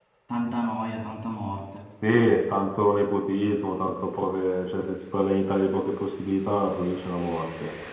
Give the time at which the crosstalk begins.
none

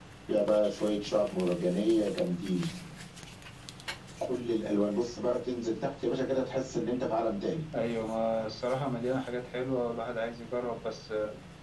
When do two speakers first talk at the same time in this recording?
none

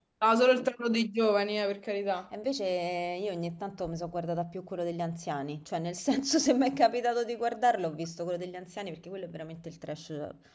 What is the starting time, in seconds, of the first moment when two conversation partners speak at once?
none

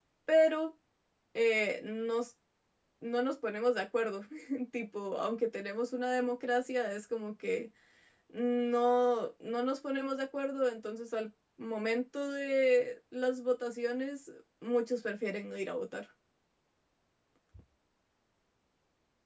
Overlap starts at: none

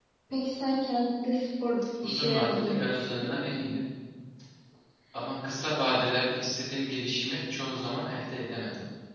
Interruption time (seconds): 2 s

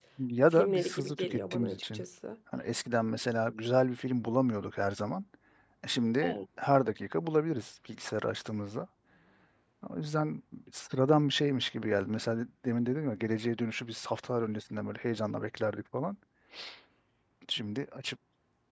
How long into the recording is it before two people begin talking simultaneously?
1 s

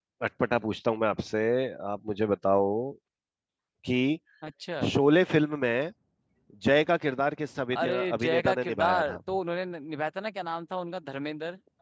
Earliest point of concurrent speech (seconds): 8 s

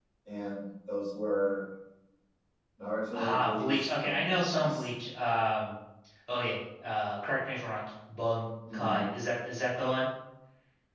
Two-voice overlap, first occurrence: 3 s

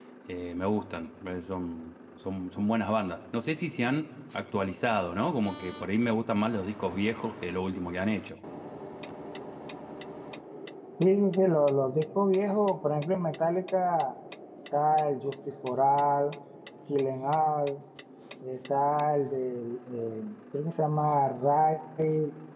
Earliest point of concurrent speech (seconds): none

